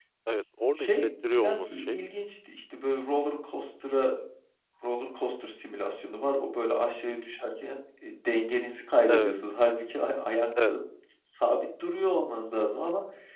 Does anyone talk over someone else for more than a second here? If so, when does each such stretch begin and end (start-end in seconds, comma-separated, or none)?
0.8-2.0